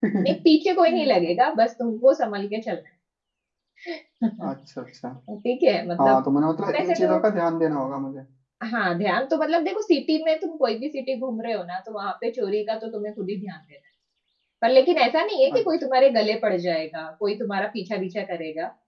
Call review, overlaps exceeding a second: none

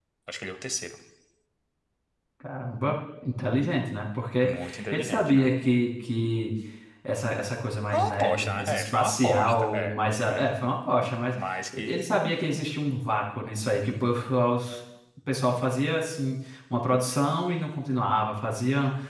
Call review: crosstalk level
present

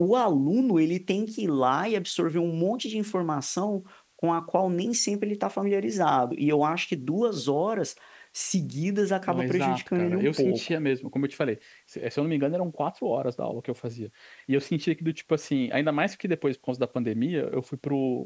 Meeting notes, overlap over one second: present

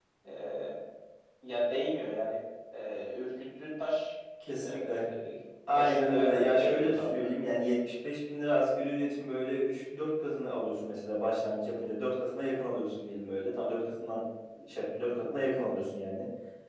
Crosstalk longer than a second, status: present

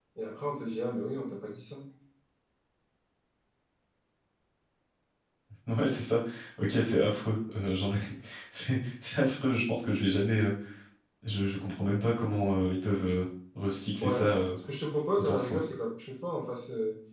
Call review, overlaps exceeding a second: none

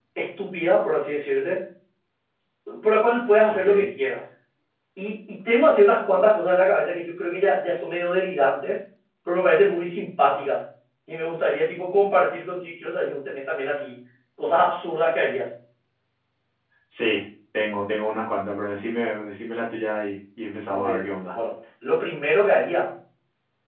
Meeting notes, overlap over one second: none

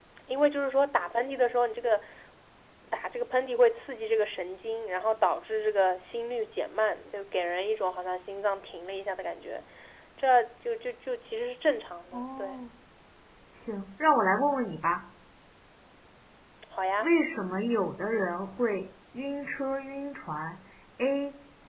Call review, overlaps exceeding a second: none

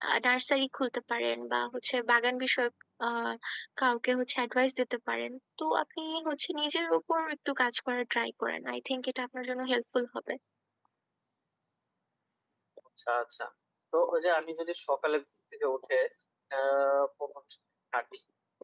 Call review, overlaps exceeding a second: none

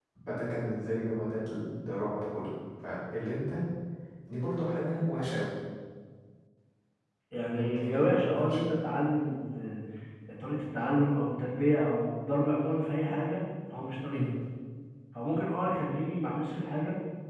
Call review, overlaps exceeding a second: present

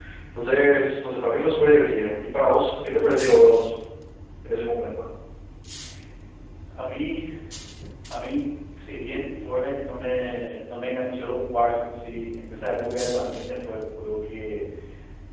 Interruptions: none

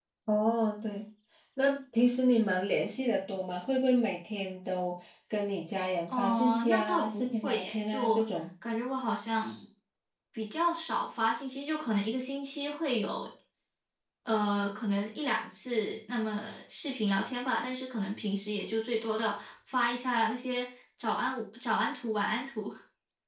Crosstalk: present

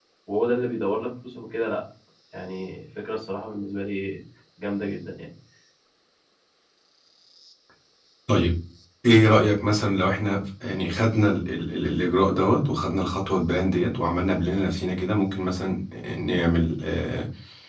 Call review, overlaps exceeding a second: none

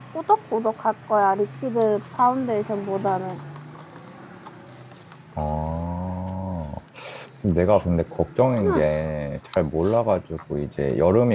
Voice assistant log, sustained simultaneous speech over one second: none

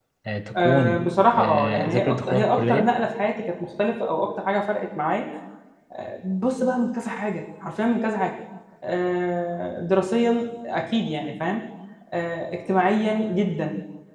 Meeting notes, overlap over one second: present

